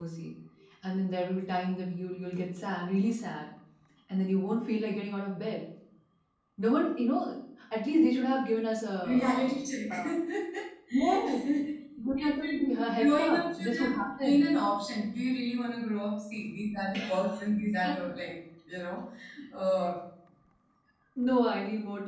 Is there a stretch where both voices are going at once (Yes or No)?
Yes